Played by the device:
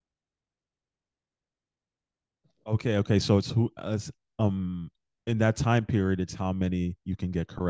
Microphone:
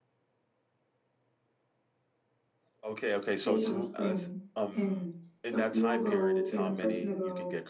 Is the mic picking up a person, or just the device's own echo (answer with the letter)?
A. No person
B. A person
B